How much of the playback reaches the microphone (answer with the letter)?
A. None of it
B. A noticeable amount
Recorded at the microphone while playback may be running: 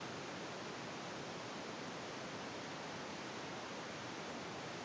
A